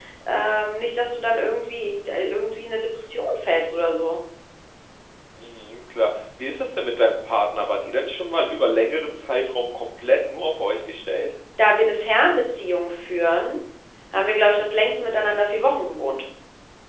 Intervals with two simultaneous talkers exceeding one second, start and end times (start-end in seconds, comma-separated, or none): none